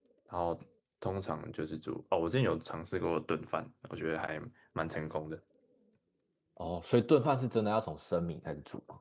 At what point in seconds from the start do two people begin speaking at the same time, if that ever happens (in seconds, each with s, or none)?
none